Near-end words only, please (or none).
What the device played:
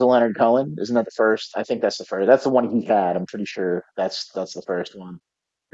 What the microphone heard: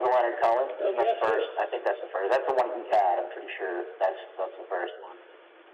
Oh, yeah, cool.